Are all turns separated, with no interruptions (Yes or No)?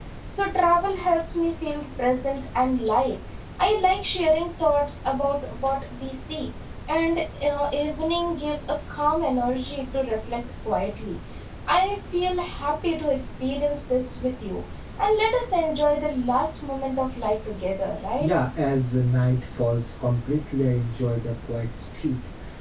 Yes